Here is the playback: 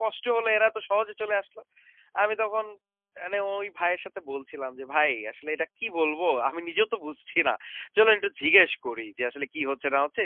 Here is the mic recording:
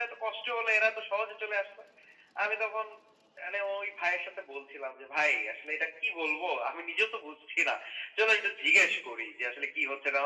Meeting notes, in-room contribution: none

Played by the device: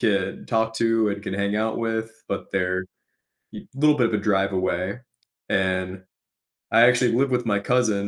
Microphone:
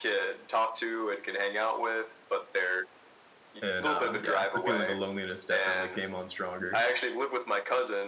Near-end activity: present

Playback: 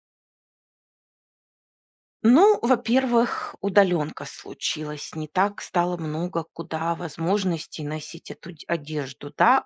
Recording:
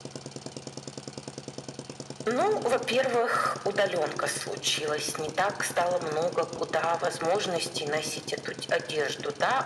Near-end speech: none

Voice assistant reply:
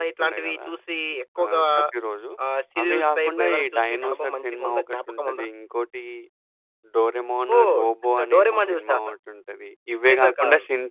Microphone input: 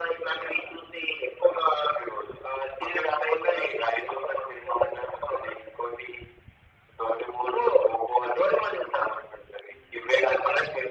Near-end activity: none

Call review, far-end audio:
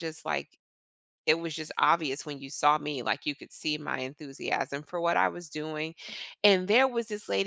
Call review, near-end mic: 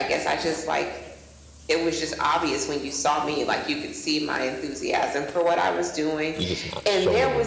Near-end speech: present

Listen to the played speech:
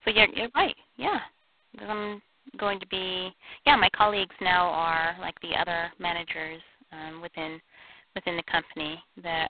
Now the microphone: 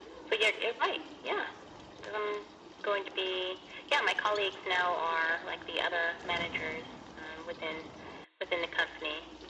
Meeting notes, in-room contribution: none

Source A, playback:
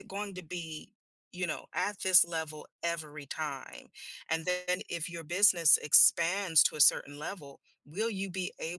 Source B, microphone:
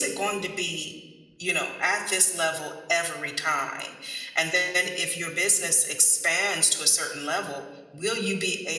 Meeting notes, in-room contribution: none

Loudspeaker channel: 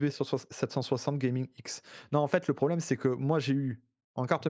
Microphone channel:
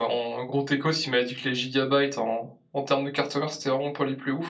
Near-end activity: present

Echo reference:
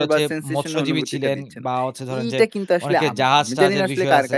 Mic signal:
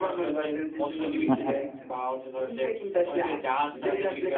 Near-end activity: present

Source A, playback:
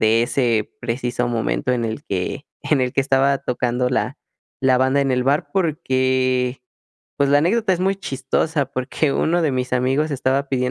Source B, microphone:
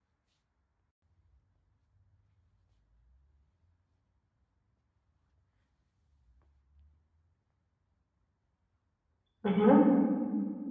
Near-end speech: present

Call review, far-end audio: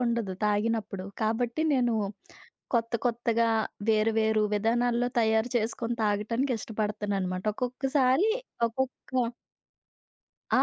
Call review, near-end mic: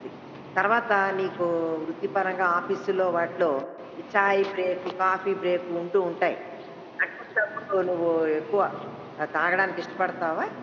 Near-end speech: present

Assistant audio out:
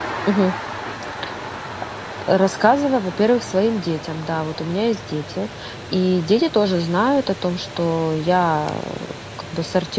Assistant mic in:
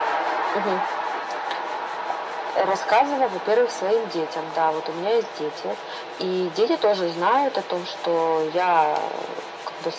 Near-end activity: none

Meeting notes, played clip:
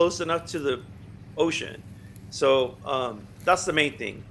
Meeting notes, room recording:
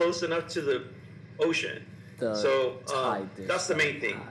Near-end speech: present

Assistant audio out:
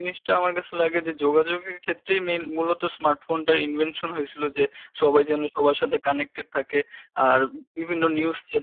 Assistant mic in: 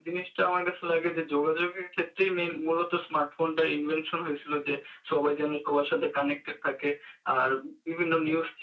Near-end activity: none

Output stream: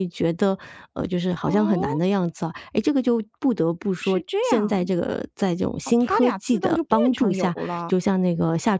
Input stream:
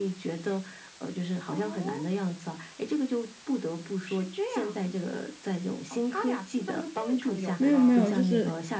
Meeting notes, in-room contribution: present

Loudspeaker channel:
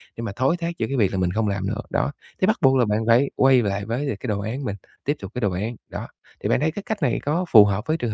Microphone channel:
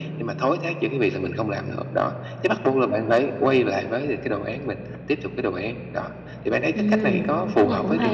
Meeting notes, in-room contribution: present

